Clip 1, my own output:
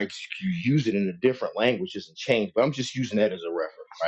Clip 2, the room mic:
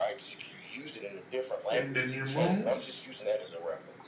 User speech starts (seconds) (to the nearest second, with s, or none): 2 s